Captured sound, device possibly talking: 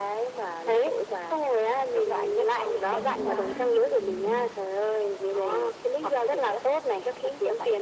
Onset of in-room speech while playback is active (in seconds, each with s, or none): 2.7 s